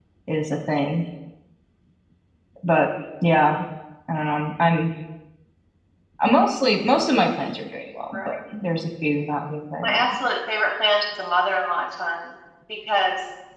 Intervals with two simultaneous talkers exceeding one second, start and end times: none

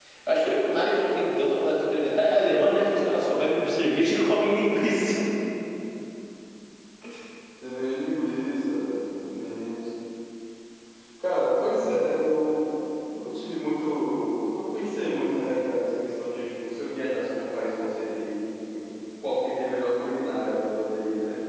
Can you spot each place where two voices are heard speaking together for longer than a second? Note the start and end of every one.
none

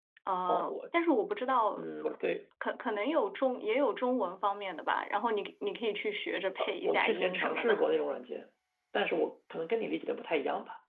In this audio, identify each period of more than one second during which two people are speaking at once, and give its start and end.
6.6-7.8

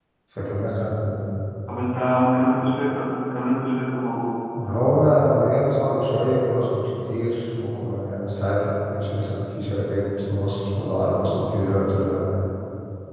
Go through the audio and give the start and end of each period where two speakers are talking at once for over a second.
none

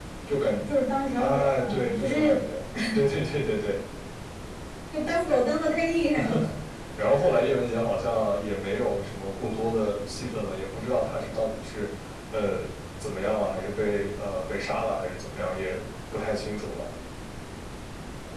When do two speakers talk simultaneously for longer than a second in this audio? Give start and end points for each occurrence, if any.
1.2-2.4

